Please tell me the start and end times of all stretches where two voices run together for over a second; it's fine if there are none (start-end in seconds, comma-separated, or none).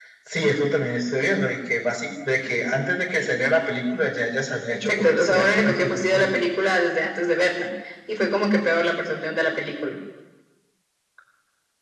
4.7-6.3